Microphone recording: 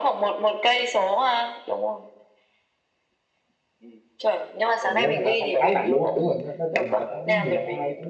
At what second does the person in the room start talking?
4.8 s

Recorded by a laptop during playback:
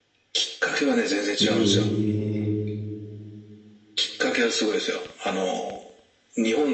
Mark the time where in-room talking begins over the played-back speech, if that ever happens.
1.4 s

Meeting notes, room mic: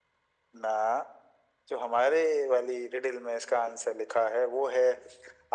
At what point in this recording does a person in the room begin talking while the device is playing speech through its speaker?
none

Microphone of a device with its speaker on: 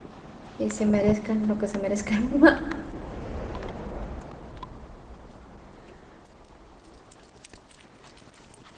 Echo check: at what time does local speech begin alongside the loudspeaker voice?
0.6 s

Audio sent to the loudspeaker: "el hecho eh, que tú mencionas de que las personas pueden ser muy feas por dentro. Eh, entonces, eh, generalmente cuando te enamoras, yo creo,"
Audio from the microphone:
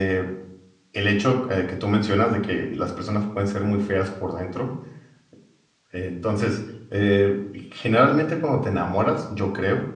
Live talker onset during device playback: none

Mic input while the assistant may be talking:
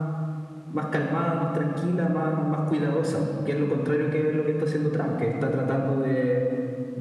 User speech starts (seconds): none

